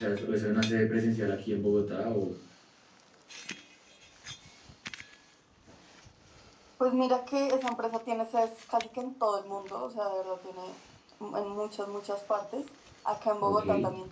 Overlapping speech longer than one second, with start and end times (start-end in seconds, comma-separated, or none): none